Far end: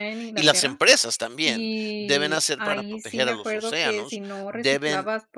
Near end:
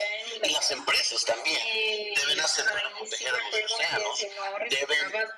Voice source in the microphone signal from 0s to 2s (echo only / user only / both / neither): echo only